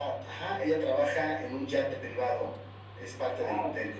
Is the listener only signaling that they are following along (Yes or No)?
Yes